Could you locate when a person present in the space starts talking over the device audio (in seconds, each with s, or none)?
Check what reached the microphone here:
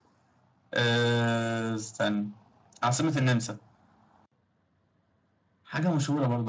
none